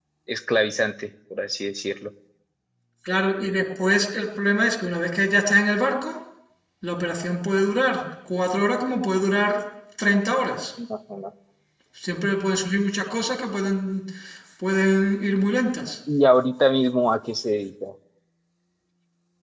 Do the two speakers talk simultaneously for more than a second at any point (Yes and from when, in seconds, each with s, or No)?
No